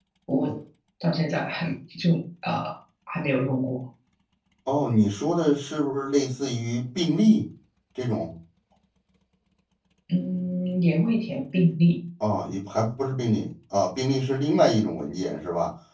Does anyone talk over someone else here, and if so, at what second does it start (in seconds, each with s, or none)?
none